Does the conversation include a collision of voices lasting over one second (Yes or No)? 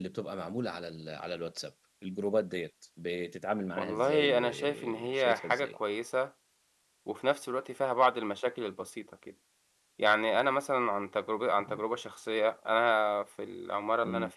Yes